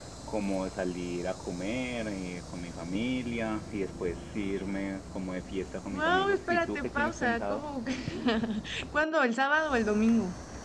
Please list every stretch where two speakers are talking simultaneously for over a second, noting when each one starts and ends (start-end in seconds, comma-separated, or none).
5.9-7.7